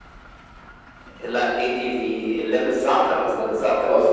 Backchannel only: No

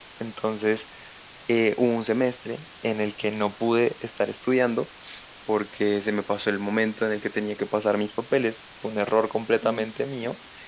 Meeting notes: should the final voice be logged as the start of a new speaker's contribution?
No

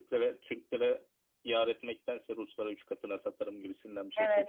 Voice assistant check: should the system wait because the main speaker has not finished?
No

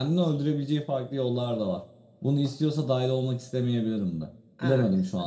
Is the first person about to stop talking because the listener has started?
Yes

